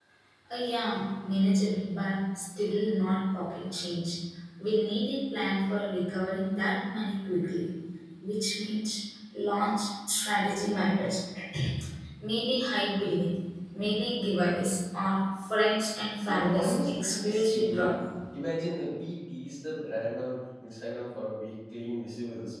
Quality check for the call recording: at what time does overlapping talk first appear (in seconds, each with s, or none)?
16.2 s